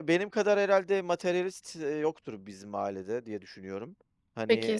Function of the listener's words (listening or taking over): taking over